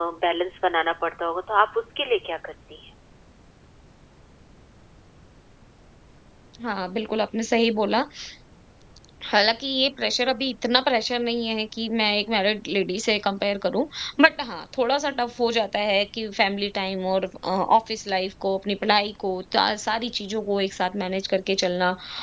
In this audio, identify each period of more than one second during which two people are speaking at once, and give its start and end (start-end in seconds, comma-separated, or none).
none